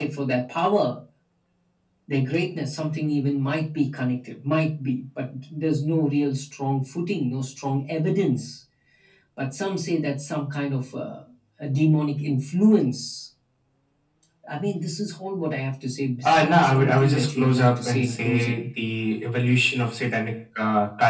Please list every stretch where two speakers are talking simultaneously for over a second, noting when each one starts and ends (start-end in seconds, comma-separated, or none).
16.2-18.7